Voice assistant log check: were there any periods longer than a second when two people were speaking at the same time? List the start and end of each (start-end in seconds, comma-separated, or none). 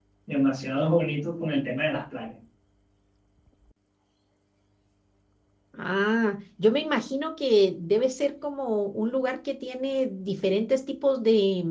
none